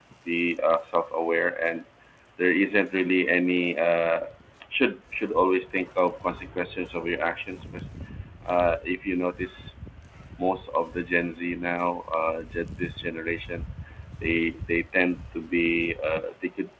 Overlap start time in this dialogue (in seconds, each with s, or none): none